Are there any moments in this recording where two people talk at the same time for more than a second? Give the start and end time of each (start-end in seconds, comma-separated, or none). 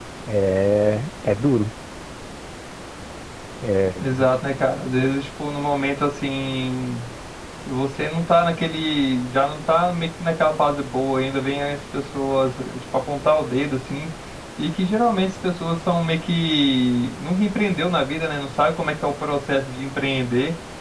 none